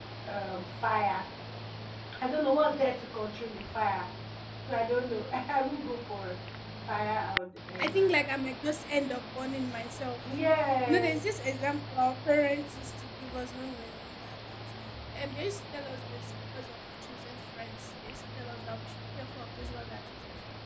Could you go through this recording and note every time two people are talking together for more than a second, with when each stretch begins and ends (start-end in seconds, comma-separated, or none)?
none